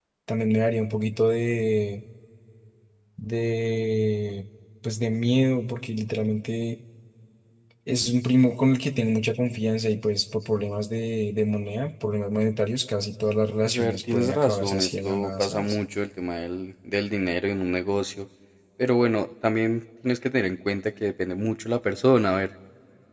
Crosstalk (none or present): present